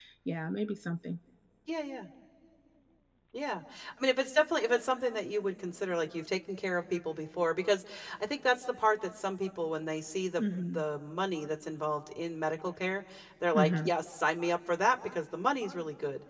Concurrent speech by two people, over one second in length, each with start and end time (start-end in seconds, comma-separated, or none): none